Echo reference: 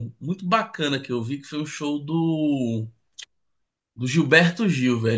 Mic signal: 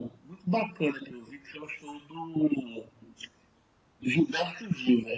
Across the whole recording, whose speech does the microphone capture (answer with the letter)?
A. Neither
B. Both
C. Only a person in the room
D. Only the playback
D